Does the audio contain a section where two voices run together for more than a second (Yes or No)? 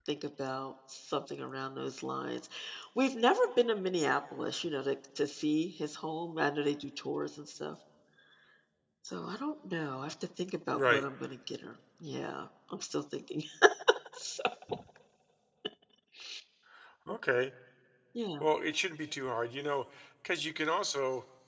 No